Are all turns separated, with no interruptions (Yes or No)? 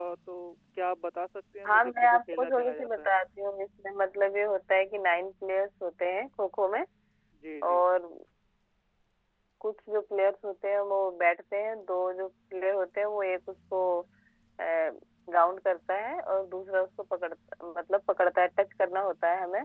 No